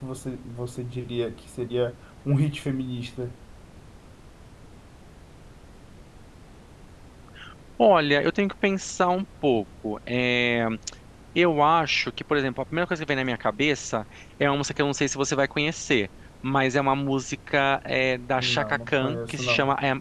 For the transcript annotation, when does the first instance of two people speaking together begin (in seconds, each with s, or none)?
18.4 s